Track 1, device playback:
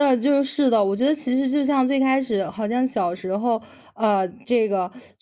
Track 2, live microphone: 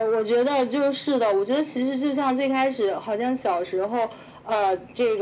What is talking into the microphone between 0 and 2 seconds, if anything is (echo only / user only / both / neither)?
echo only